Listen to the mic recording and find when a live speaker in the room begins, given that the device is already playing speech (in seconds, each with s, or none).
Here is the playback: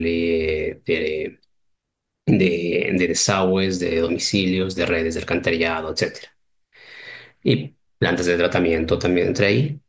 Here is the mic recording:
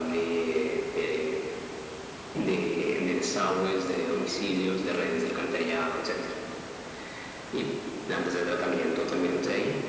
none